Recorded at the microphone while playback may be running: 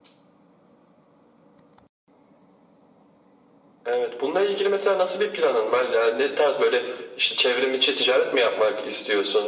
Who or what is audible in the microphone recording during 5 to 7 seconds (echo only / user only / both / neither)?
echo only